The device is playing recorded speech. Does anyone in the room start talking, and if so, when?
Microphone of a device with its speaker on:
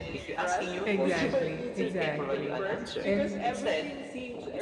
0.8 s

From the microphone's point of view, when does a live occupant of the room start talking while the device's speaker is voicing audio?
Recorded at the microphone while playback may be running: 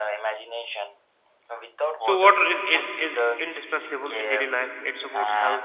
2.0 s

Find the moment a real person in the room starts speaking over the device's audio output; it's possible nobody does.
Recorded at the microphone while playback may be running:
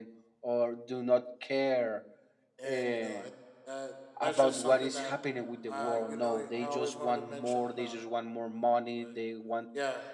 2.6 s

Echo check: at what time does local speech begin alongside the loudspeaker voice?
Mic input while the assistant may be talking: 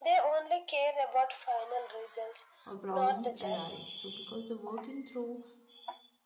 2.6 s

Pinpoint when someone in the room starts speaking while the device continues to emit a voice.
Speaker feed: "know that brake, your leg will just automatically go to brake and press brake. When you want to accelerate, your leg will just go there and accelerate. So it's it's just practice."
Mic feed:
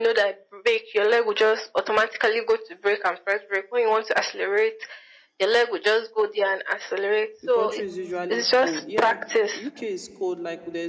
7.4 s

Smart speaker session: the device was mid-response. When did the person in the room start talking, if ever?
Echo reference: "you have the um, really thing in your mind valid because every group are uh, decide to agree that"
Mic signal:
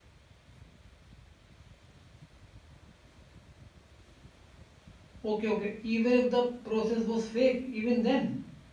5.2 s

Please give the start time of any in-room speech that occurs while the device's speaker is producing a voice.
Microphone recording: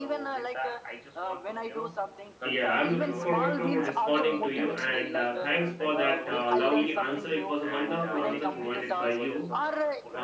2.4 s

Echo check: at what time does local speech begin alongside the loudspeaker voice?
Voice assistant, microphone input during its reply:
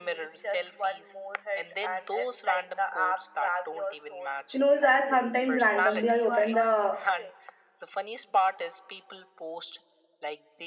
4.5 s

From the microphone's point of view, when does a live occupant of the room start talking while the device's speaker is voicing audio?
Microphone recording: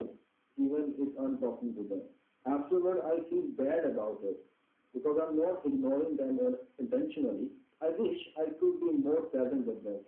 none

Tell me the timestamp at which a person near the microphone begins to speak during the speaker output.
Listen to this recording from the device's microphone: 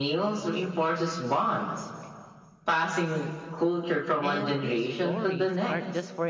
4.2 s

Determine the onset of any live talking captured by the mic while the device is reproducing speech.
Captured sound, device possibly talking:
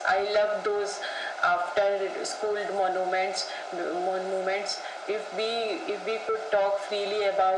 none

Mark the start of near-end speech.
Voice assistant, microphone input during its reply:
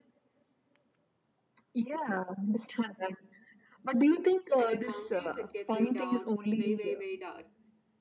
4.5 s

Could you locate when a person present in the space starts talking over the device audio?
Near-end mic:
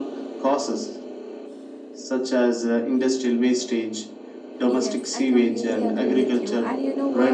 4.7 s

